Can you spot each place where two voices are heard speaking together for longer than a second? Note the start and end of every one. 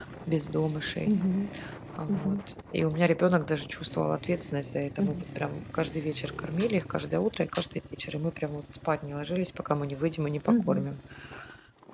none

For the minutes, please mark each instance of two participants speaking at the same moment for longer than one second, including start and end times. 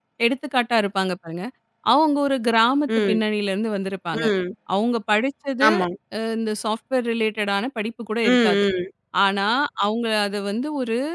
none

